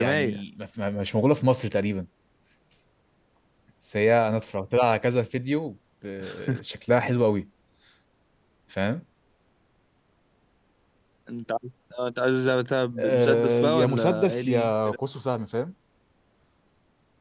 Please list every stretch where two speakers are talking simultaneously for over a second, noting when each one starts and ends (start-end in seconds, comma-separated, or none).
13.0-15.0